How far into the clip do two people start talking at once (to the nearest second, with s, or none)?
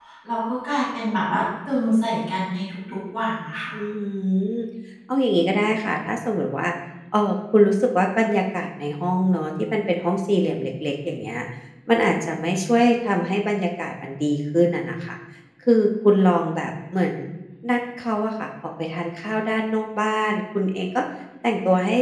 none